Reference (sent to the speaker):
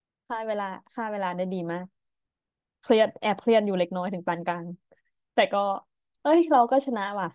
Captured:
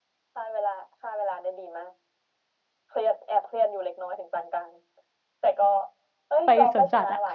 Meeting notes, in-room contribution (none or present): present